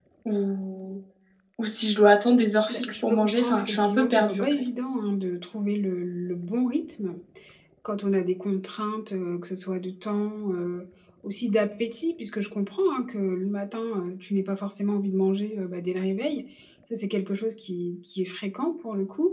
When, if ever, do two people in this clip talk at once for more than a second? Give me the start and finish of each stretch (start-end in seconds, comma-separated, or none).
2.7-4.6